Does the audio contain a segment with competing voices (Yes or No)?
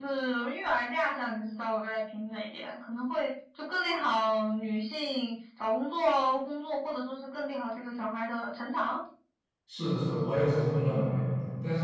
No